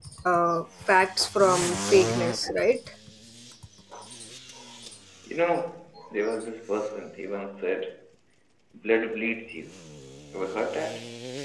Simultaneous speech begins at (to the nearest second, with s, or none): none